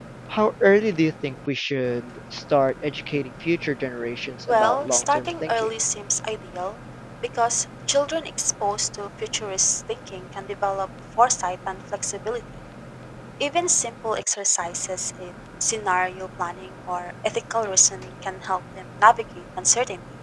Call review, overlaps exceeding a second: present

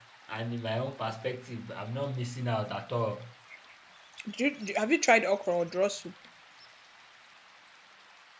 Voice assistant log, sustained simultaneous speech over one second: none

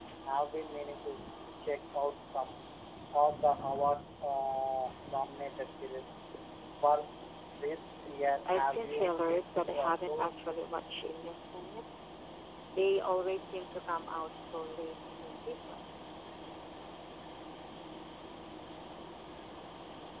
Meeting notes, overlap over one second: present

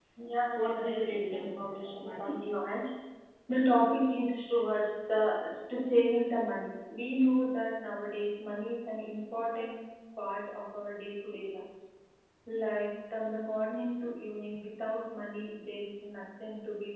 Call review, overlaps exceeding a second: present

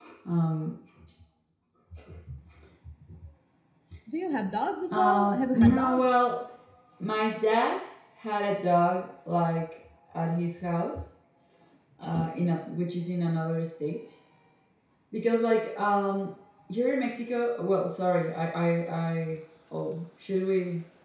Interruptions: present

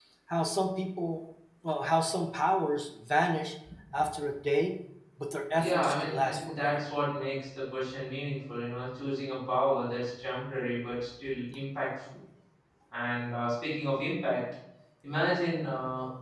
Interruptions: present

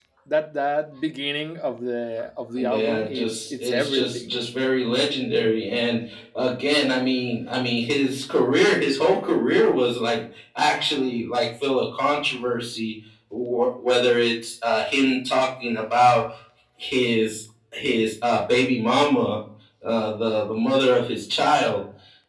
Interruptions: present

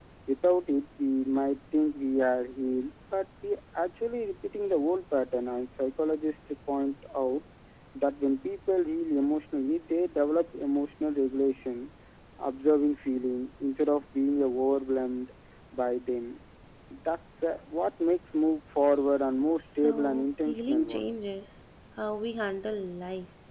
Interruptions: present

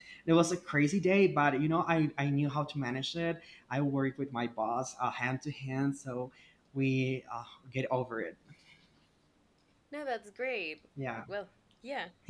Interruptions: none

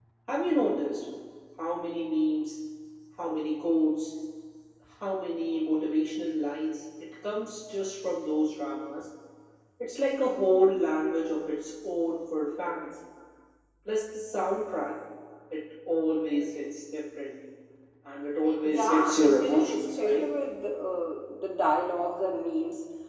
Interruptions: present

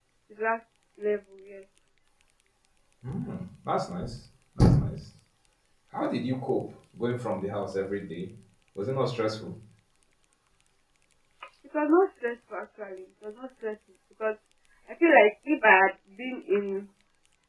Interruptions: none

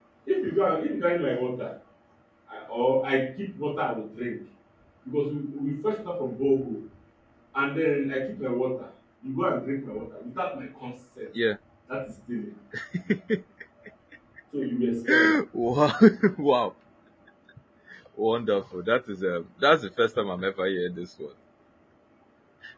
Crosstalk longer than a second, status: none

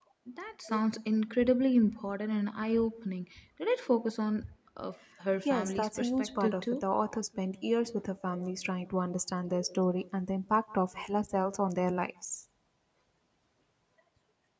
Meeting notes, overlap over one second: present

